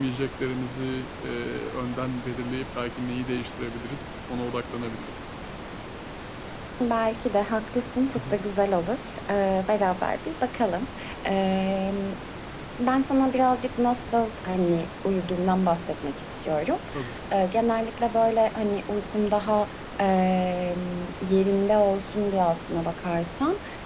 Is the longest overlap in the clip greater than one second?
No

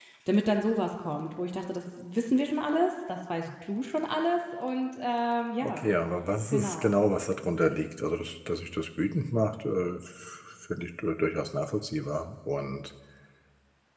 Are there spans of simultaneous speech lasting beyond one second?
No

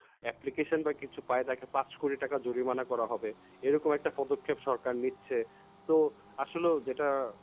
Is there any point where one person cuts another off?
No

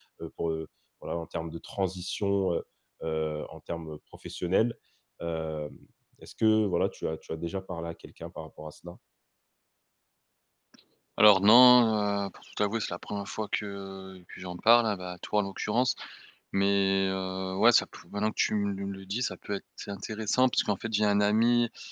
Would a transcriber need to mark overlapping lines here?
No

